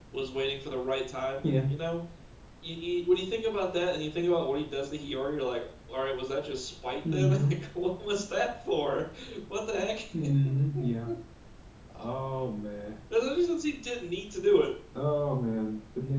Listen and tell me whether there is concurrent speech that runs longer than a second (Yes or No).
No